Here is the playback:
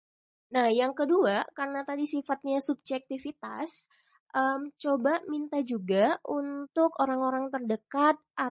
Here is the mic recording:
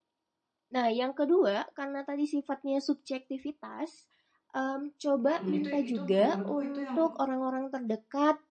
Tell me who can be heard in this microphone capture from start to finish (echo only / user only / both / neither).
both